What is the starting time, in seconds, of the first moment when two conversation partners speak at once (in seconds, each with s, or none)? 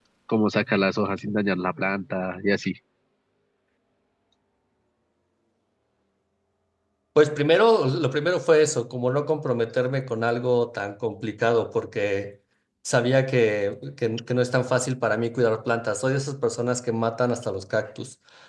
none